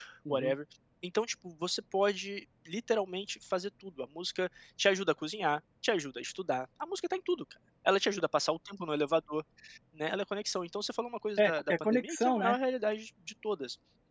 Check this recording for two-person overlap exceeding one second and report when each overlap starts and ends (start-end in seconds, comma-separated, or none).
11.4-12.6